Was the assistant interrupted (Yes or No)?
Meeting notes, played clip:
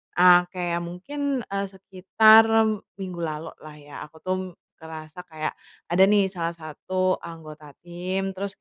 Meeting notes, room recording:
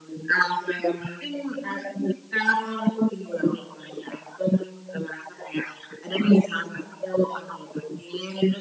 No